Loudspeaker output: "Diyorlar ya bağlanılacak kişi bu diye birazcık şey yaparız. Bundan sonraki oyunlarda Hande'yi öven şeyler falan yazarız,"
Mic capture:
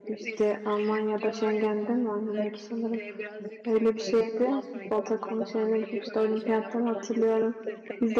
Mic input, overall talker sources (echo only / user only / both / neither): both